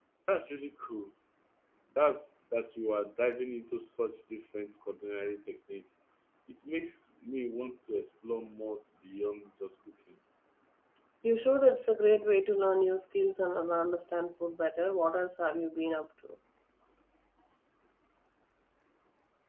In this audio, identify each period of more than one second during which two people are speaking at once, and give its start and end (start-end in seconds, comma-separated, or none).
none